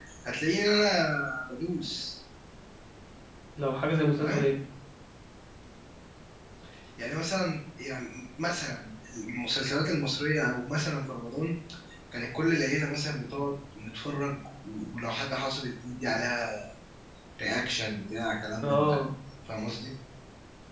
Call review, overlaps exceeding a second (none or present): none